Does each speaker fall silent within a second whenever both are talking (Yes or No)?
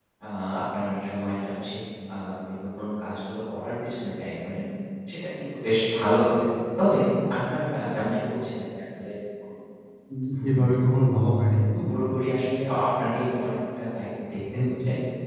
Yes